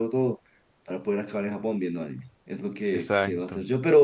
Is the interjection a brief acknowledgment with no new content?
Yes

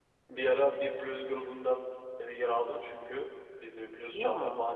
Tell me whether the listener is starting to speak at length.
No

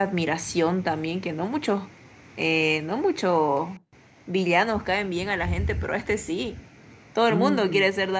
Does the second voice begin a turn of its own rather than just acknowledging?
Yes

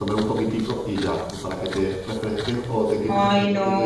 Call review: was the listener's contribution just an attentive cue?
Yes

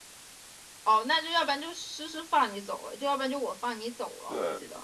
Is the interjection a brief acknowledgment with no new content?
No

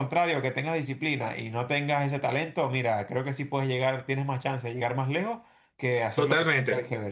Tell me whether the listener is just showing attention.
No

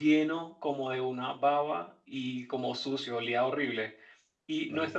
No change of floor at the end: Yes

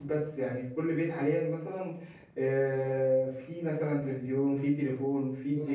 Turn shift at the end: No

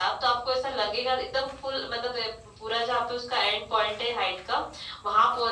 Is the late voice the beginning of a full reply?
No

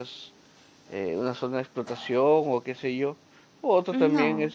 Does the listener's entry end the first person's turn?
No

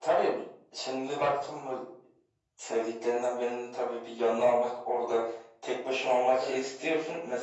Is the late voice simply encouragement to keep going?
Yes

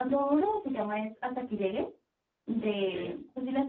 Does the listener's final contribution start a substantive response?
No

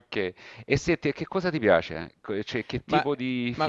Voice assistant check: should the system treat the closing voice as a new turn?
Yes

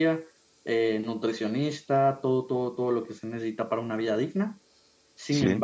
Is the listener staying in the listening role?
Yes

